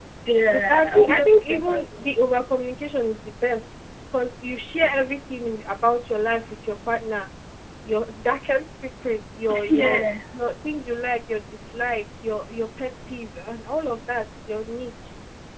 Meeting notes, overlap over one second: present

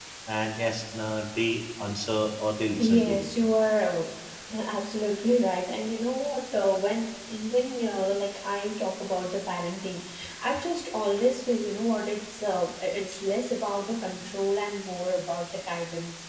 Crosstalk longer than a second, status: none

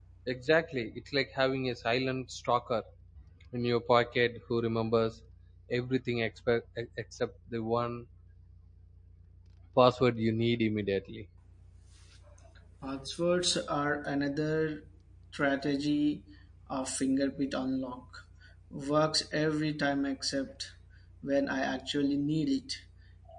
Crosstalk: none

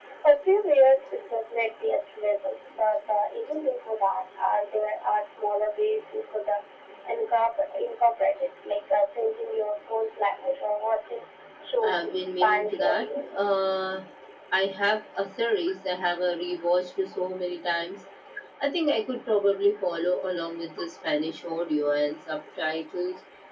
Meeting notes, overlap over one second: present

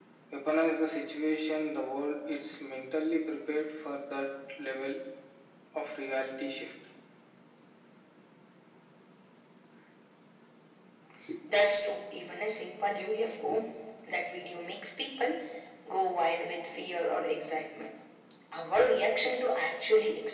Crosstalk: none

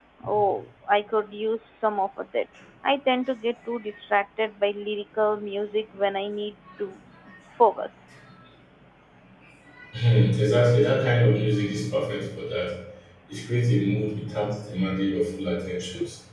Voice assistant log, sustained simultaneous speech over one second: none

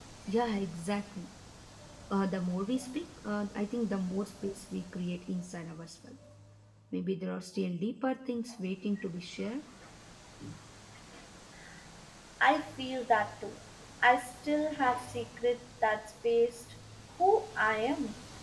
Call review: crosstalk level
none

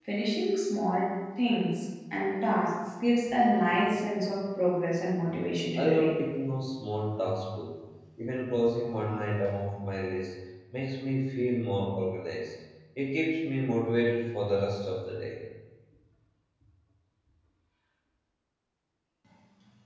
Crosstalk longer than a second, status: none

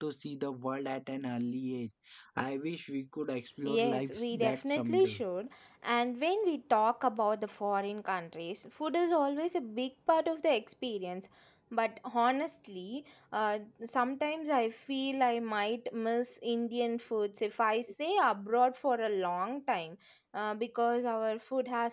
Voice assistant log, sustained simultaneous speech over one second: present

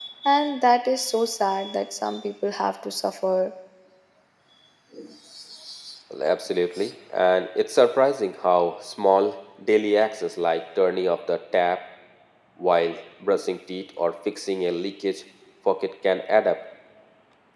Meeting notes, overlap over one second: none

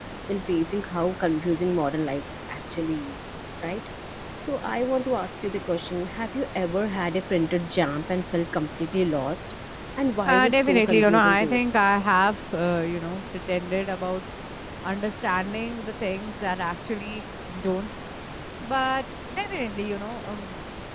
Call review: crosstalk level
present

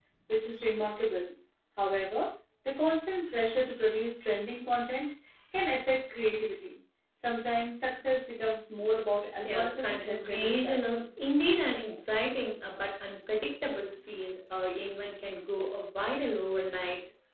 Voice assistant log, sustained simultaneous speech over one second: present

